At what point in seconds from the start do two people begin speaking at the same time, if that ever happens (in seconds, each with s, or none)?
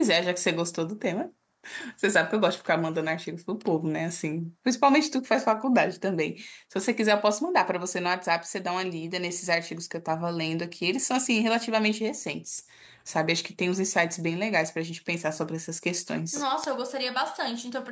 none